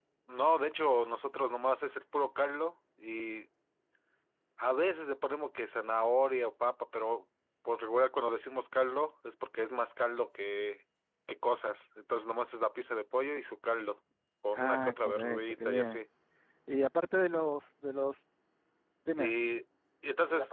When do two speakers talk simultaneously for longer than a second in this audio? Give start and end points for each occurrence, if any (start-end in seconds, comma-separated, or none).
14.5-16.0